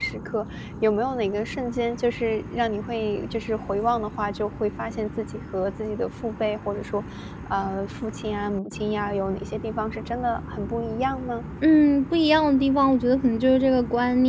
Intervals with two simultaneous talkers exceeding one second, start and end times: none

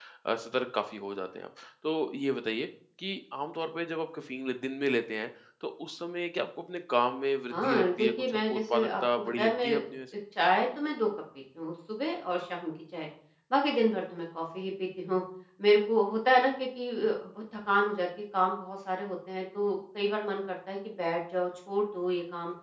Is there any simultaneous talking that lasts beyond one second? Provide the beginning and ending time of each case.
7.5-9.8

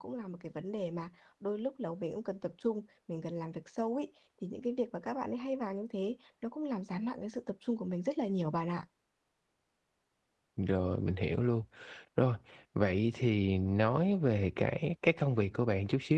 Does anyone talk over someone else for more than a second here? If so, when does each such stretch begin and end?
none

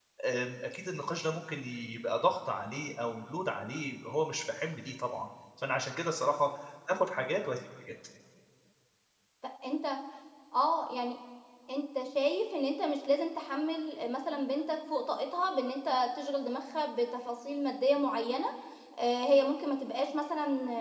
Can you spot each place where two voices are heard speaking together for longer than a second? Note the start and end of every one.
none

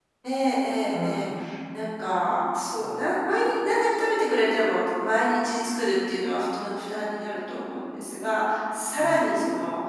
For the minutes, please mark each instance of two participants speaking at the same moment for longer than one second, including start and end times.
none

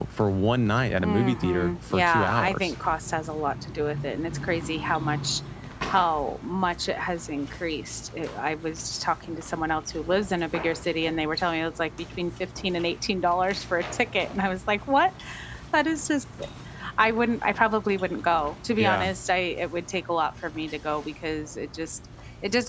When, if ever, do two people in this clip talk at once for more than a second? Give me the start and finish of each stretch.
1.0-2.7

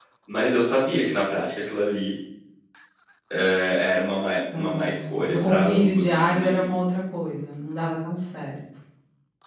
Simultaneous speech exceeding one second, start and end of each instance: 4.5-6.7

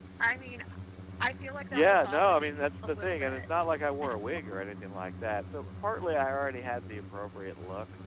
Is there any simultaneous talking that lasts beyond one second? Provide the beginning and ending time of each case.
1.7-3.4

